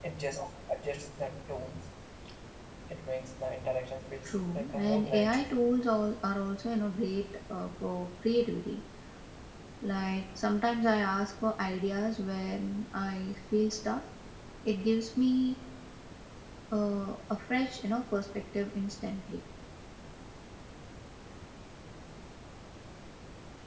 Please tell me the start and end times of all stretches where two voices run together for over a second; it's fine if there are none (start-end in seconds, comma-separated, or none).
4.2-5.6